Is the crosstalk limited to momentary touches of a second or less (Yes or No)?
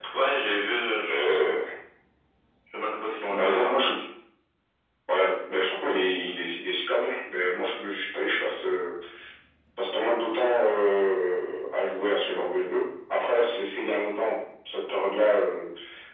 Yes